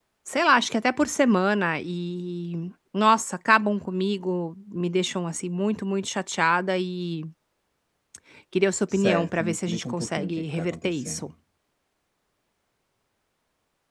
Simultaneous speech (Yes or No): Yes